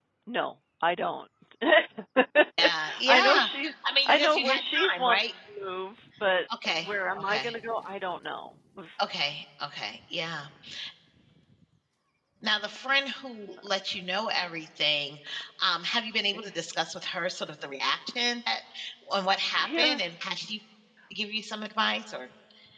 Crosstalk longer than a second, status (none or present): present